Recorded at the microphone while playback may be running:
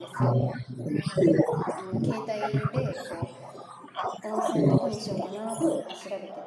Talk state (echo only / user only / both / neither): both